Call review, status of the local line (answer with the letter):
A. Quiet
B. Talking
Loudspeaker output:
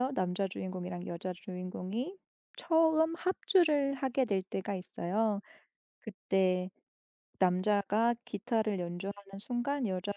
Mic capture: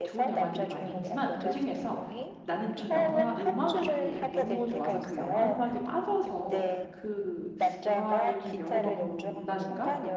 B